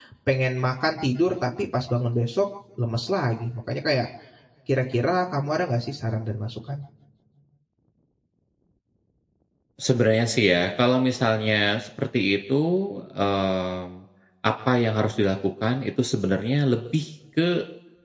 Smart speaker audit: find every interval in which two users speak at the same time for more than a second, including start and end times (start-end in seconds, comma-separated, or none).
none